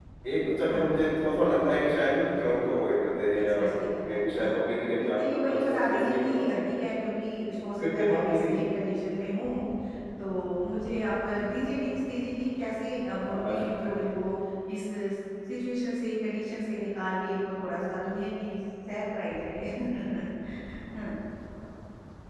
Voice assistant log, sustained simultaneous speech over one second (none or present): present